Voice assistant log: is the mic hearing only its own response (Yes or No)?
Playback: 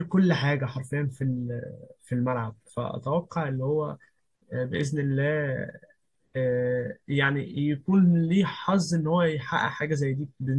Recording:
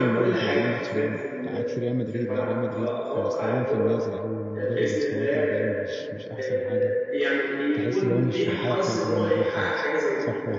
No